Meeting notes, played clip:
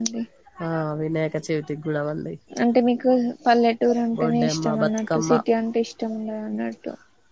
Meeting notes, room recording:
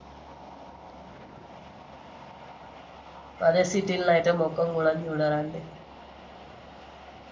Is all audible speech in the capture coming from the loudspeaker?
No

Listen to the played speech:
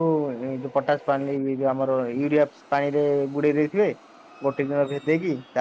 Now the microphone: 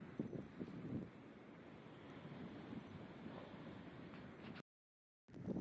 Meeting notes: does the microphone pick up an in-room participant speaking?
No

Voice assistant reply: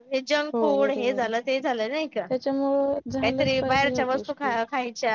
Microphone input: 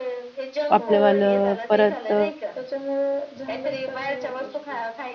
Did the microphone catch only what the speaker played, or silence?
No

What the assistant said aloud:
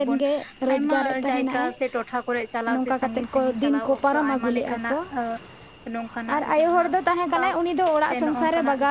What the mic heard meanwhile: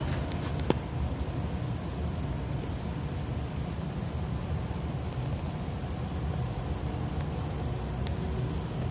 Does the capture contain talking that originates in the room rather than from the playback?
No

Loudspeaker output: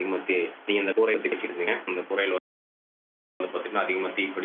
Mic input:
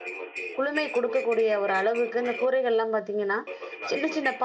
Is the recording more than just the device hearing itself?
Yes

